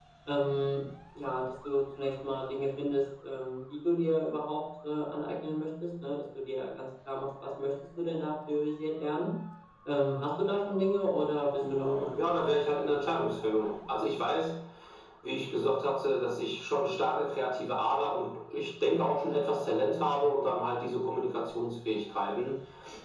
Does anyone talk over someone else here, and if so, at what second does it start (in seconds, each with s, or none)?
11.6 s